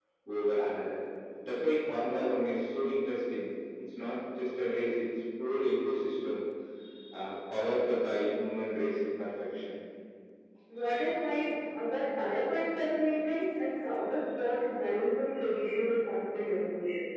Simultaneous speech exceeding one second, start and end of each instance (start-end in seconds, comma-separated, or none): none